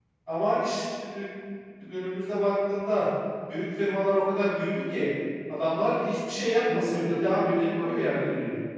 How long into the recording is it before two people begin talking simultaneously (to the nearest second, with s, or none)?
7 s